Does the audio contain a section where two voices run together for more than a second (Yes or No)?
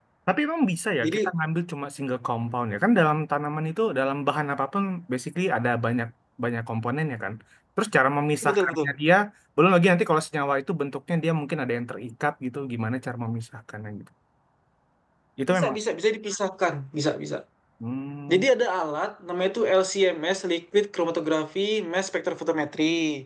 No